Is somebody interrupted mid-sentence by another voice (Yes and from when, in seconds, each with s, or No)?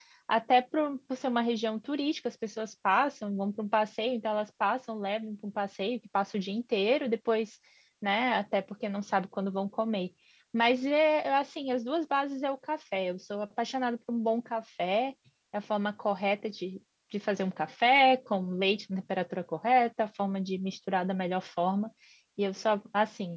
No